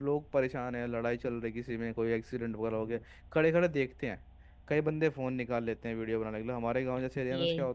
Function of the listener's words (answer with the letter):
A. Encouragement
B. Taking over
A